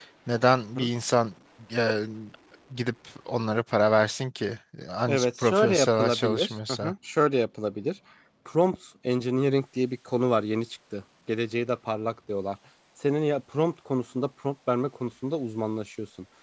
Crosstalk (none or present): present